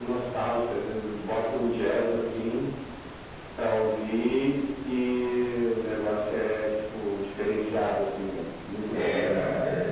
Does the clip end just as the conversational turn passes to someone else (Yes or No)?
Yes